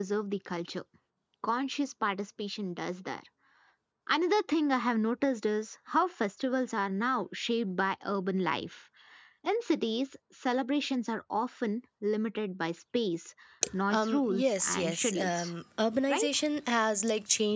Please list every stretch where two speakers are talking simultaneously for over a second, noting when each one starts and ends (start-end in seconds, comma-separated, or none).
13.9-15.5